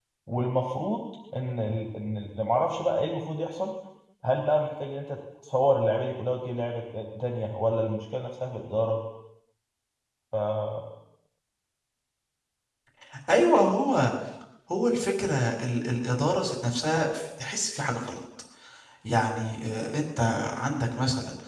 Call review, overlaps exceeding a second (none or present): none